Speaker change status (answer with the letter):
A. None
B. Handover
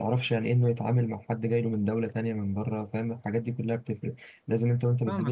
B